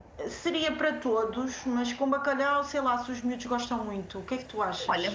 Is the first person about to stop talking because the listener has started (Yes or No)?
Yes